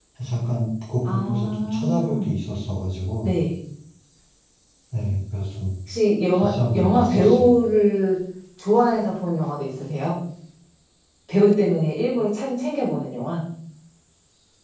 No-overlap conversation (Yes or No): No